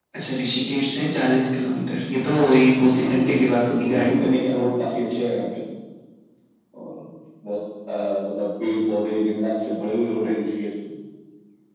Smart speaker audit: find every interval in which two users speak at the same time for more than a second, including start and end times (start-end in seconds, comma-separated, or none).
2.9-4.3